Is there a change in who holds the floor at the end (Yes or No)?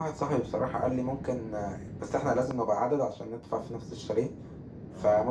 No